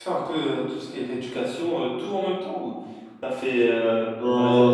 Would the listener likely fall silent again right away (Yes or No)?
Yes